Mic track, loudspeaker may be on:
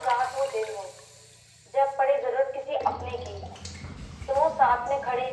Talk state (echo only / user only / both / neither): echo only